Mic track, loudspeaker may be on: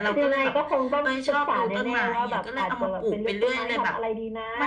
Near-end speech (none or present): none